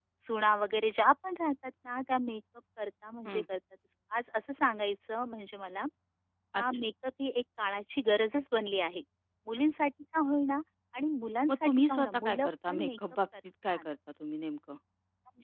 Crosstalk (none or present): present